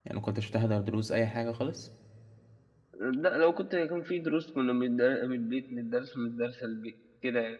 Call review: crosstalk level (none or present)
none